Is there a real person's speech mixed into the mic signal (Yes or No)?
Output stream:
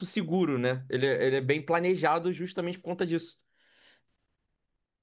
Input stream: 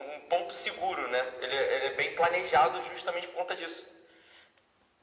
No